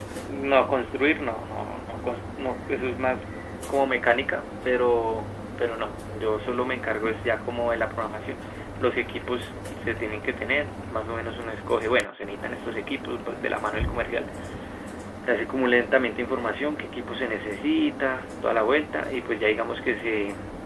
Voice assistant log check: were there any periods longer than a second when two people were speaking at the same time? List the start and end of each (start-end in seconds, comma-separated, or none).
none